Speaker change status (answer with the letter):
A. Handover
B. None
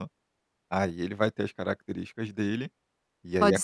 A